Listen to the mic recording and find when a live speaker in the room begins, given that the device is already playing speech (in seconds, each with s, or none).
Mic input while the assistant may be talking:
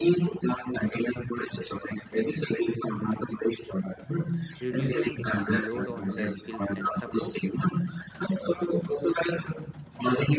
4.6 s